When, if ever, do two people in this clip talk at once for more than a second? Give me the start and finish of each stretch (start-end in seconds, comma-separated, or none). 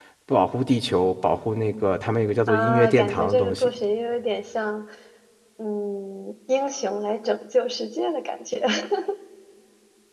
2.5-3.7